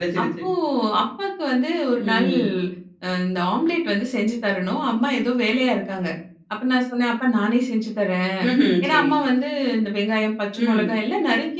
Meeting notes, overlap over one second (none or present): none